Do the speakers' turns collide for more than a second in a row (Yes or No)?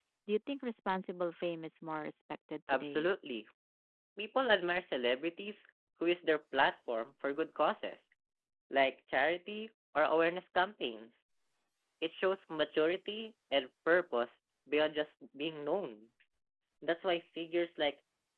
No